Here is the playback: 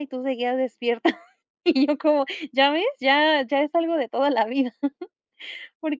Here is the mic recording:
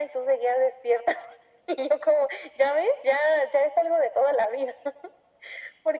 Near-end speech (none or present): none